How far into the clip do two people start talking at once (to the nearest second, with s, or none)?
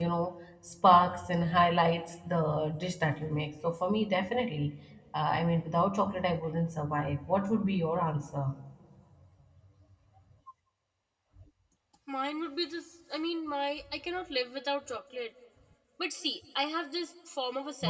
none